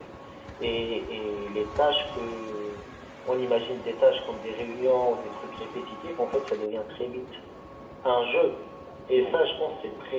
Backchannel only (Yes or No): Yes